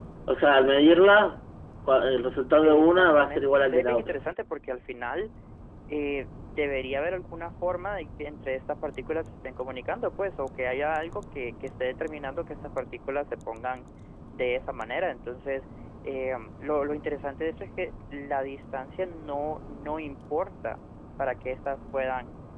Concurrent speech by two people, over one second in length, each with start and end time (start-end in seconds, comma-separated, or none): 2.6-4.2